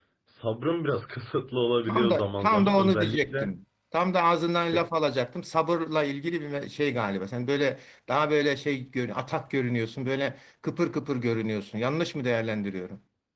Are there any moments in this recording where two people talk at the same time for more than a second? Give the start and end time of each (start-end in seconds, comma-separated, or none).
1.9-3.5